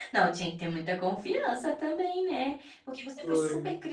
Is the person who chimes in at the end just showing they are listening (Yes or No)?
Yes